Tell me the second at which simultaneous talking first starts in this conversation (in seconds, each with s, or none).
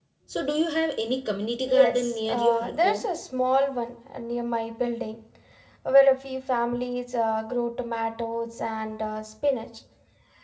1.7 s